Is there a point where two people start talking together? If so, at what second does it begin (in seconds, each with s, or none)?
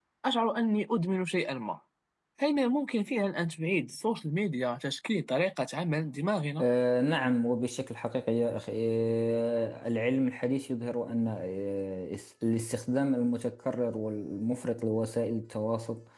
none